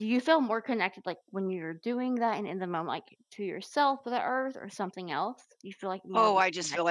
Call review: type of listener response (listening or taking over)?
taking over